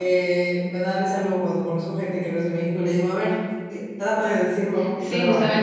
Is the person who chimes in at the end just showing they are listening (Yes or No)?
No